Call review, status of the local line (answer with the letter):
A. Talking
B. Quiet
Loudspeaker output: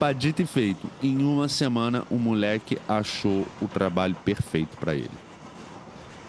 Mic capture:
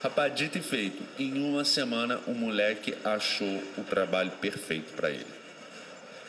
B